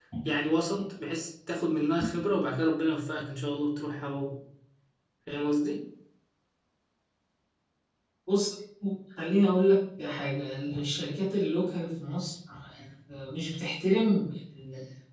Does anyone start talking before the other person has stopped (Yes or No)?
No